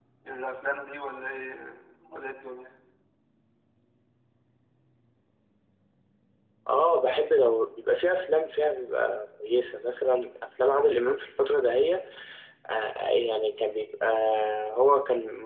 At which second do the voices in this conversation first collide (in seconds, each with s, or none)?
none